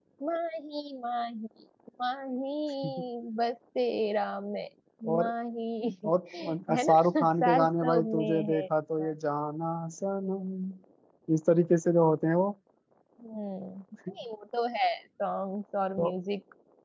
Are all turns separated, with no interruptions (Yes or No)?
No